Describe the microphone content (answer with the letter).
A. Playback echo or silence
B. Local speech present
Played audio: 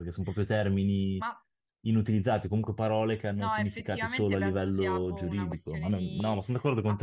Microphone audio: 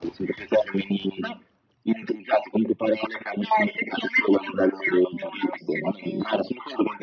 A